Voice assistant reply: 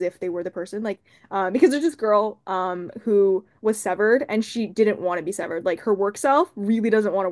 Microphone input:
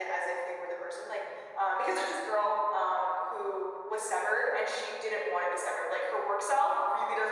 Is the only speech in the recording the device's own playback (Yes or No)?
Yes